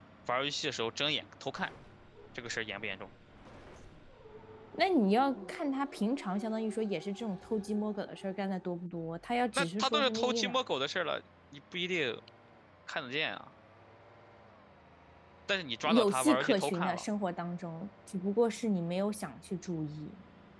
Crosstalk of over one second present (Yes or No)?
Yes